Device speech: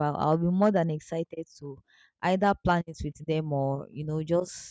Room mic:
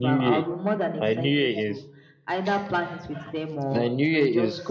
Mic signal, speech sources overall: both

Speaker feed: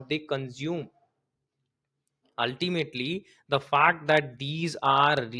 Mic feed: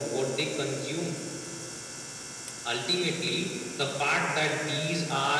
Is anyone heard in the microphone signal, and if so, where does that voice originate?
echo only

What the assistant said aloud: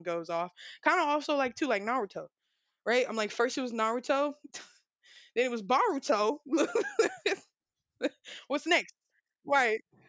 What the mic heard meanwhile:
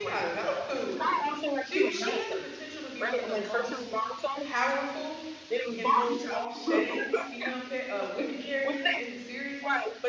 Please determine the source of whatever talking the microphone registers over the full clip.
both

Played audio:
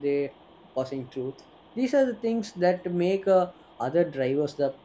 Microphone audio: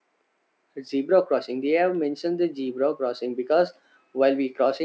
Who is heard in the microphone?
user only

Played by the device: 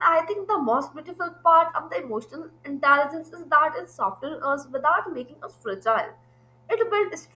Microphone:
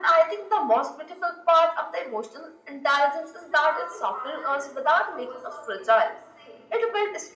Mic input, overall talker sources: both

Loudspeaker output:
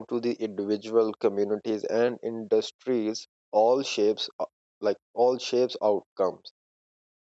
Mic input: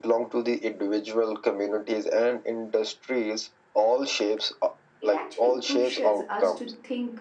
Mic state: both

